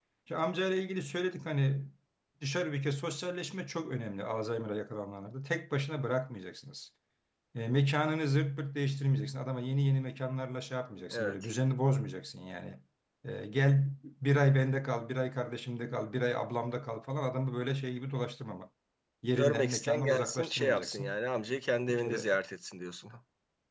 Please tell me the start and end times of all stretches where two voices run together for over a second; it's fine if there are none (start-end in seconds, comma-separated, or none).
19.4-21.1